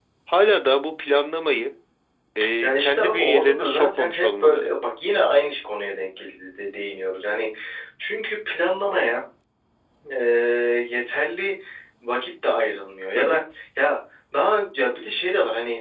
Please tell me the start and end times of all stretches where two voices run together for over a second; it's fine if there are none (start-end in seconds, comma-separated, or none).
2.6-4.7